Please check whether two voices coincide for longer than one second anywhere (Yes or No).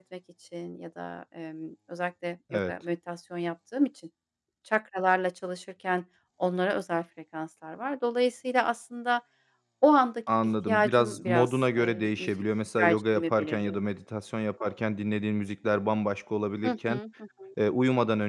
Yes